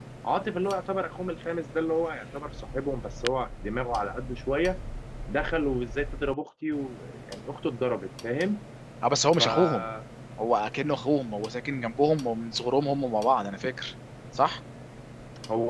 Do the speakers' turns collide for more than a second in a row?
No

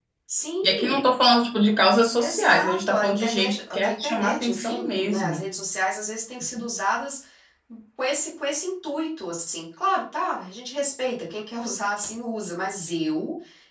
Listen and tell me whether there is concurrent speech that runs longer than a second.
Yes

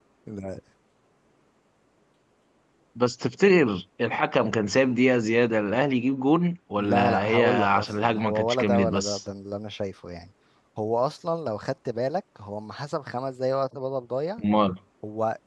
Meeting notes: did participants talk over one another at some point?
Yes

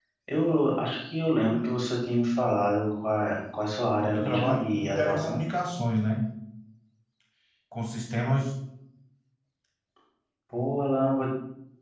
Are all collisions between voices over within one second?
No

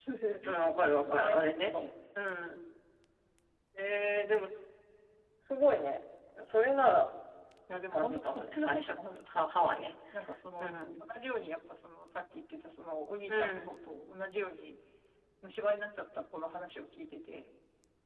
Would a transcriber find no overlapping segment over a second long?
No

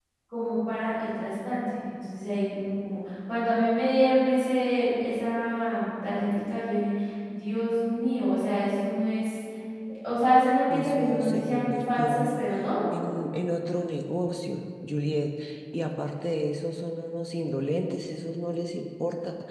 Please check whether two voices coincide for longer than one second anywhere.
Yes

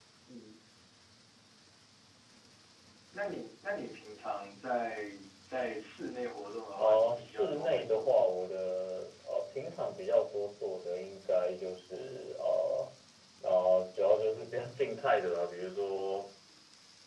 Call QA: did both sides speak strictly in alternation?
No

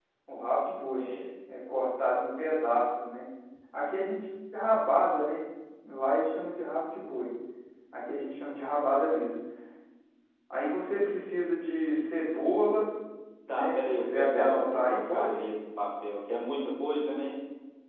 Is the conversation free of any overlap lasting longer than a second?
No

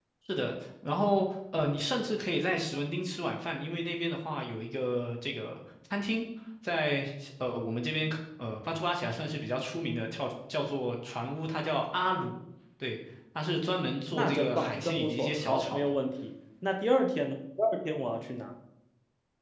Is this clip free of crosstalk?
No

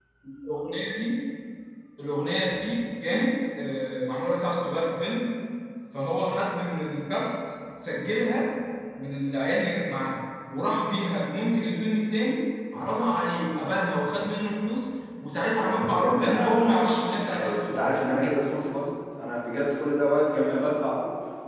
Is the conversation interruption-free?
No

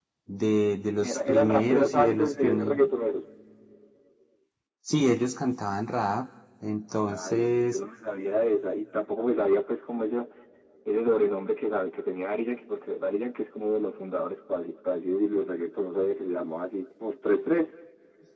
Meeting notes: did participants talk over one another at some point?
Yes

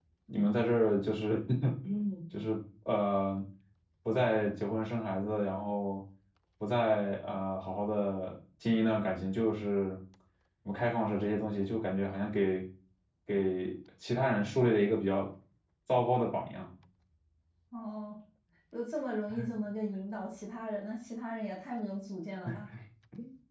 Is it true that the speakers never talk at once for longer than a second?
Yes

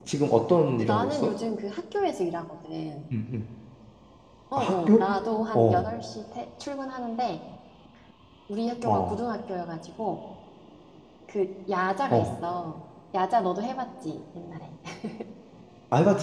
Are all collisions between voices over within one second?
Yes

